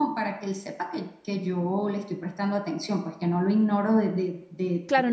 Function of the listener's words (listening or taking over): taking over